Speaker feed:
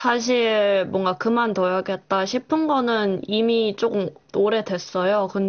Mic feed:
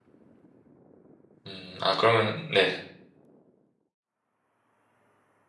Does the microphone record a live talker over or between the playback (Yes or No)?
Yes